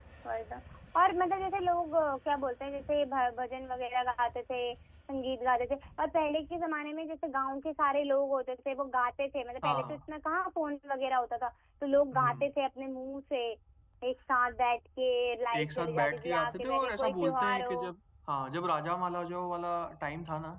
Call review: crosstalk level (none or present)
present